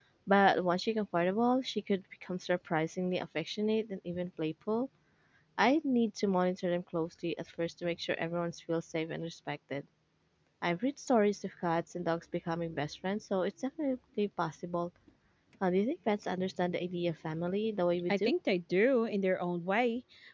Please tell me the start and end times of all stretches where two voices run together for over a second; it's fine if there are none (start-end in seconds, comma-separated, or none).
none